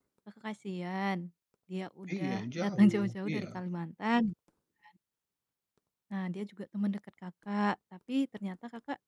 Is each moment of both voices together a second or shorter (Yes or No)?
No